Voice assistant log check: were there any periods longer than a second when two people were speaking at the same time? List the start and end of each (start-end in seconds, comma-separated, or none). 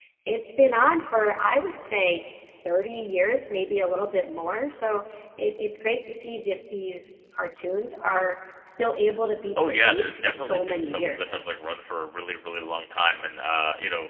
9.6-11.4